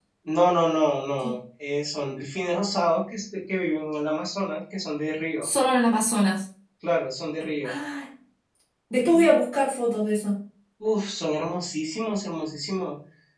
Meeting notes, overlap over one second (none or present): none